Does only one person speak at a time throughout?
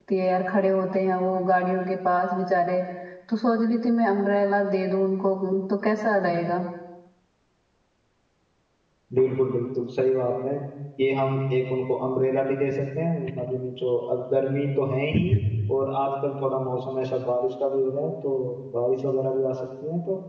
Yes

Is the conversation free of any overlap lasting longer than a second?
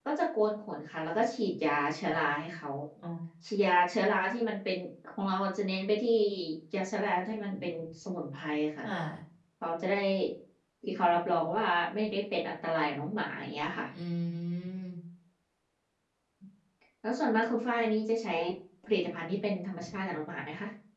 Yes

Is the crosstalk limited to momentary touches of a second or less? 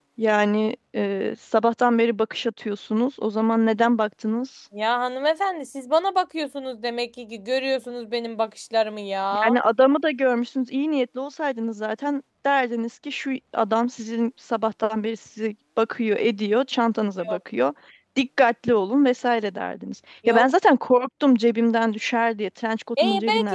Yes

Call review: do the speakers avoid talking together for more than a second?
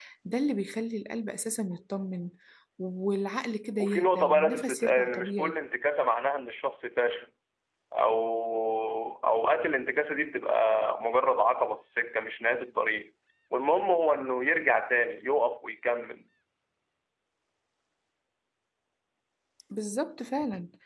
No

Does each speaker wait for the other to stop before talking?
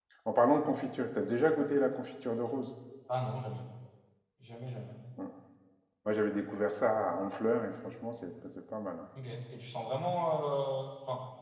Yes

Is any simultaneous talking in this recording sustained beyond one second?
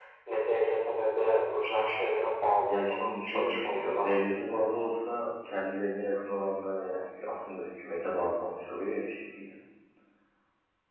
Yes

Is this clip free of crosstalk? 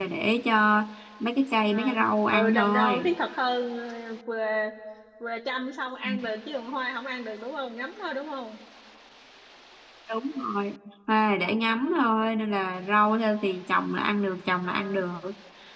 No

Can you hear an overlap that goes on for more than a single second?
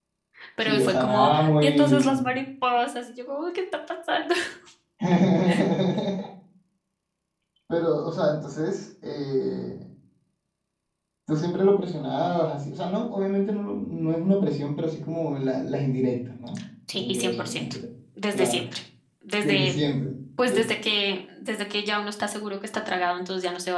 Yes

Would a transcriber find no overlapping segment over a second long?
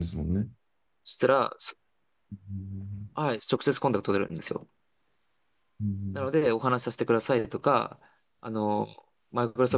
Yes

